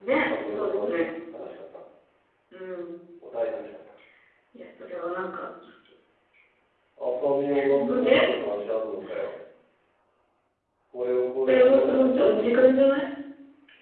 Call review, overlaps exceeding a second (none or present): present